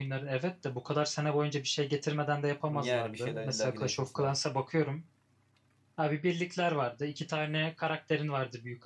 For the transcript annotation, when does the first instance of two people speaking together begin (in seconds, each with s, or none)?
2.7 s